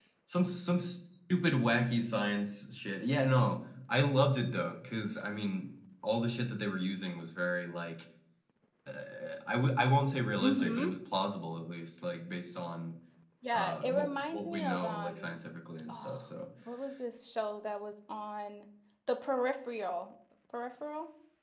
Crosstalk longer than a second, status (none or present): present